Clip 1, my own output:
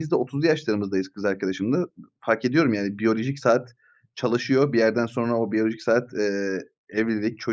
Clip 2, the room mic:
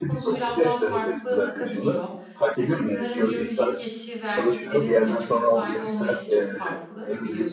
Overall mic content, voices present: both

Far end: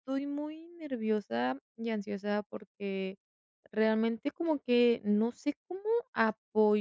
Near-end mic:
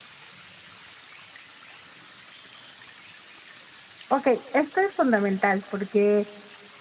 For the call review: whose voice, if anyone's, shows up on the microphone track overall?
user only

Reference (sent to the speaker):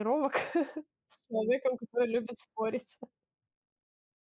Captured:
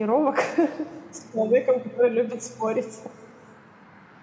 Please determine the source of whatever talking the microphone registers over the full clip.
echo only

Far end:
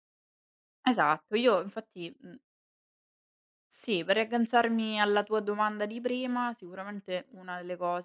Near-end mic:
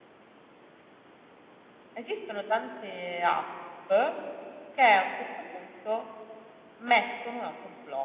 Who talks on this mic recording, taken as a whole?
user only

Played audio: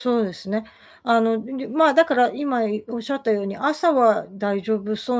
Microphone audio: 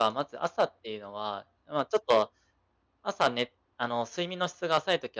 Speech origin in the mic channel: user only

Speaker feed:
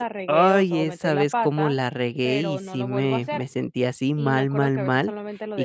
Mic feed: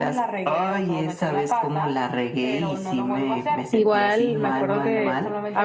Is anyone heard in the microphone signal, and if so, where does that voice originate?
both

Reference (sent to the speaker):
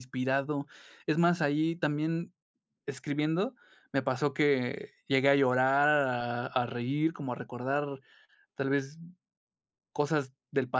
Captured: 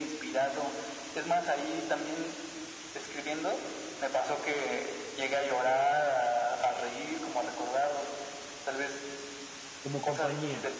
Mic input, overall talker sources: both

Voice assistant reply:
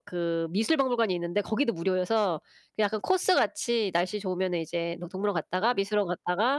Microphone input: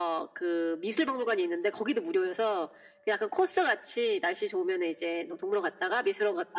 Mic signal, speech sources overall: echo only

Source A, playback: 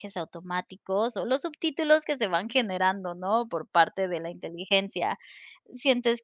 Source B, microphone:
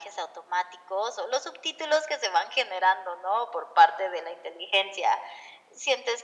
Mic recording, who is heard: echo only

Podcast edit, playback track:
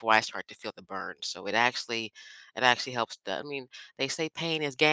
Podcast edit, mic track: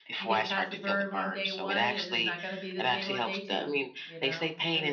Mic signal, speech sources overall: both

